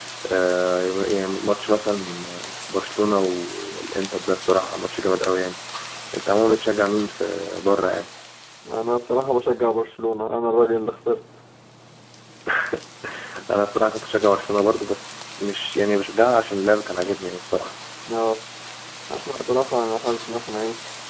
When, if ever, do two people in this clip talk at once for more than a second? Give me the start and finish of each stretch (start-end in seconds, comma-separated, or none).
none